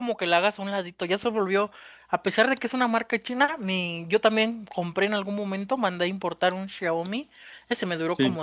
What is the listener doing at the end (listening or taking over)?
listening